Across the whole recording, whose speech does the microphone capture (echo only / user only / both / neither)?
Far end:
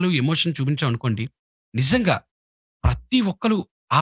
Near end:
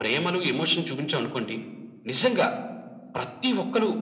echo only